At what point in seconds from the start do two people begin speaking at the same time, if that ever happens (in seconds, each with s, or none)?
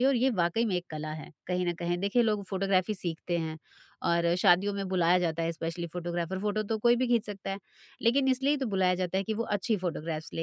none